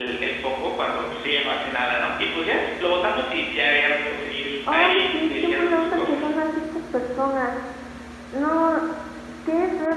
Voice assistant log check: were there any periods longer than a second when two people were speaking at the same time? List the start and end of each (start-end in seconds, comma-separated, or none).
4.7-6.3